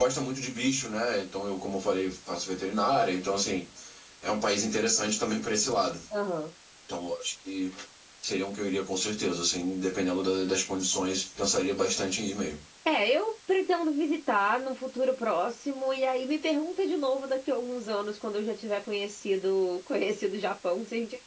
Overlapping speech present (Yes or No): No